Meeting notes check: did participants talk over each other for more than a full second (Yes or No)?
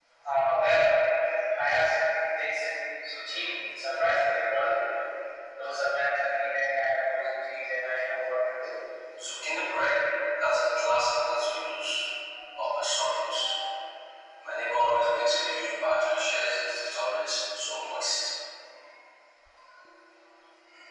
No